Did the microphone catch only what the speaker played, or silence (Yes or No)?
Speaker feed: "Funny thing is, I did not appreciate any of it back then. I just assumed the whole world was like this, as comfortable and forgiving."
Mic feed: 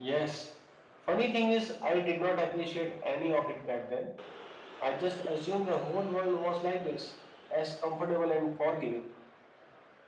Yes